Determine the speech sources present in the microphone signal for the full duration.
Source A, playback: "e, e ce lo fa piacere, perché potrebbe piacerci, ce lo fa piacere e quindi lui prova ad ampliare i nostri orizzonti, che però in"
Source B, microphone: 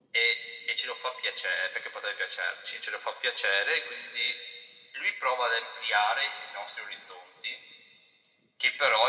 echo only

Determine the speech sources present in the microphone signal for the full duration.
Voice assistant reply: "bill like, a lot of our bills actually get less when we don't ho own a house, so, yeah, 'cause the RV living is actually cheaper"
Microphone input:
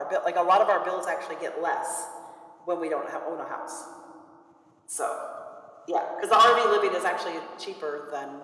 echo only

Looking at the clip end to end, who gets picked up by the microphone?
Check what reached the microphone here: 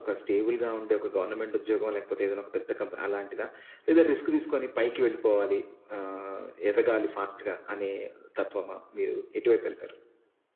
echo only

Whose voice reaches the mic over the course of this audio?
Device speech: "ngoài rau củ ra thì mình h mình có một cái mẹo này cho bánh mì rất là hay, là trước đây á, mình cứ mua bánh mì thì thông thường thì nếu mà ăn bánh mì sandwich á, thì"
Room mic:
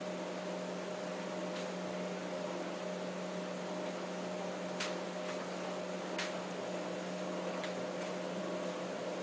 neither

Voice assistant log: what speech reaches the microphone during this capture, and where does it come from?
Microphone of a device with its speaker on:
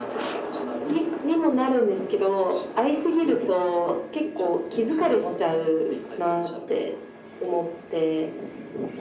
echo only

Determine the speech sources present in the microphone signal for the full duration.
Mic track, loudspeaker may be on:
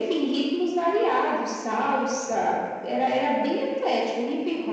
echo only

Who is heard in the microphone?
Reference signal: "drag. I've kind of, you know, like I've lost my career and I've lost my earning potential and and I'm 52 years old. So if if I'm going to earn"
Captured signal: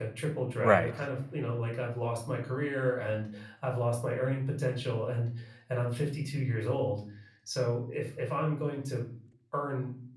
both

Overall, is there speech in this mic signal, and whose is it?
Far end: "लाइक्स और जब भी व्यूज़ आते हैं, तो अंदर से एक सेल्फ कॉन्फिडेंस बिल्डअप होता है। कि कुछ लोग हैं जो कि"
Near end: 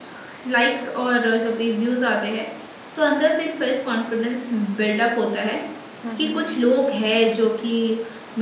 both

